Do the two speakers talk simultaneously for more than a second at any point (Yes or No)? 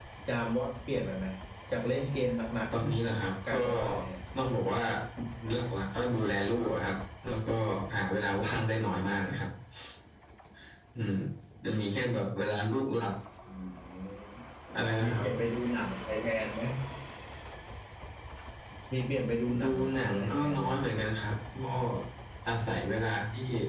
Yes